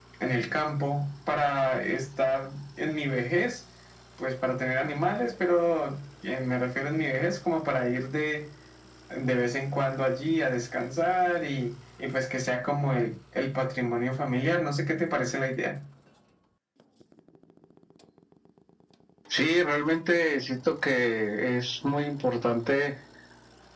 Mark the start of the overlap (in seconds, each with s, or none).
none